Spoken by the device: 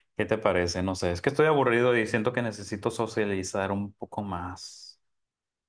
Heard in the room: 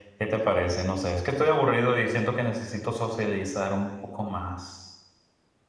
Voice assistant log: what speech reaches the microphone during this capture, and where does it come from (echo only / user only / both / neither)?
echo only